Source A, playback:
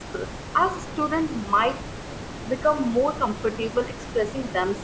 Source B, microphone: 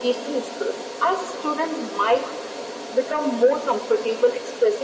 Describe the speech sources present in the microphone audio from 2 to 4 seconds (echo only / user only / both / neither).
echo only